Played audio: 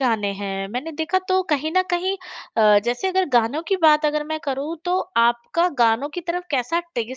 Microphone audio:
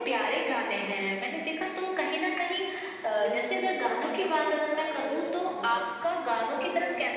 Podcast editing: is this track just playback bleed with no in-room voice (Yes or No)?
No